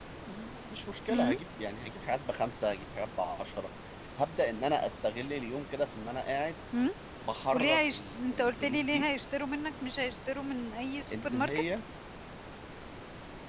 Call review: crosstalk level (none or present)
present